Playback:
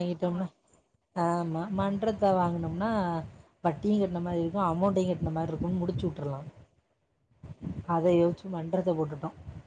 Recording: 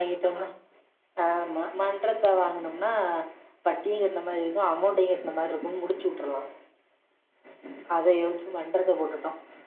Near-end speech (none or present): none